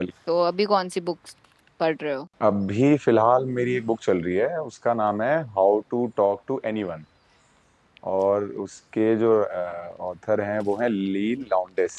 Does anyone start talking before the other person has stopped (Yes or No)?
No